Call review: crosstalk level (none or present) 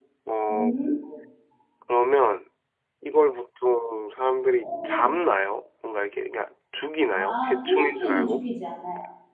present